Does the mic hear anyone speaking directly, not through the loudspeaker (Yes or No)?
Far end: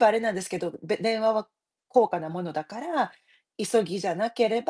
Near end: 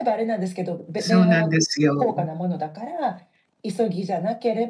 Yes